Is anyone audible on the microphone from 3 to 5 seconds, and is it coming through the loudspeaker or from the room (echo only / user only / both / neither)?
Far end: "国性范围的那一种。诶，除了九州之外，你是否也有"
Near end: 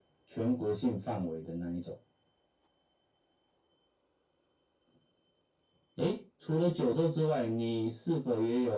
neither